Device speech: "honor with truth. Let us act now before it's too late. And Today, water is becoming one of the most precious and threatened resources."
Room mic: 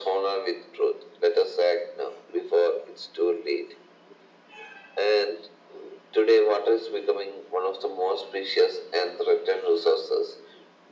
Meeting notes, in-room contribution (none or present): none